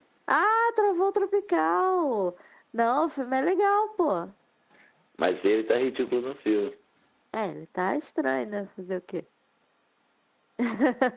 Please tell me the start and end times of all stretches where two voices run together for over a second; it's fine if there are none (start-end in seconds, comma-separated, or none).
none